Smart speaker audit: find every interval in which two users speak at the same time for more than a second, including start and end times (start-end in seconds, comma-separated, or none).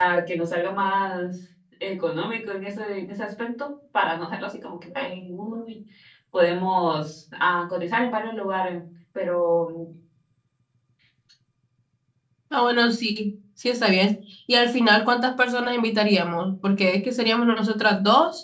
none